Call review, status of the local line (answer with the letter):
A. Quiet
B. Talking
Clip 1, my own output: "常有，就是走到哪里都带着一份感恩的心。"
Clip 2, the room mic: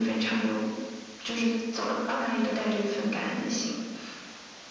A